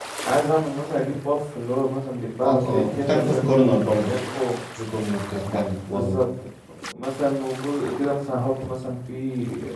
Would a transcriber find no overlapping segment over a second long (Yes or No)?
No